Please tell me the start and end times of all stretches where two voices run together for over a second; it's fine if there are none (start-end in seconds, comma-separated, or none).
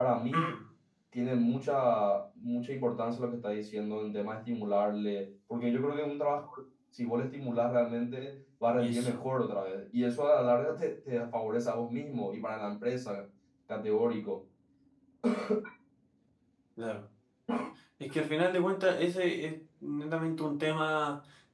none